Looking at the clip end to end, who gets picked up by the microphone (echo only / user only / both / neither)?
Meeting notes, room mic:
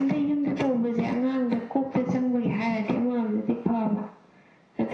echo only